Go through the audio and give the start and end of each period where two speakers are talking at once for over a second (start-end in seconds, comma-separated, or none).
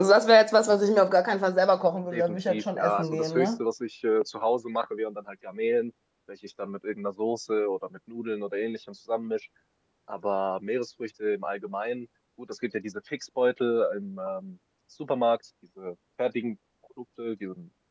2.1-3.6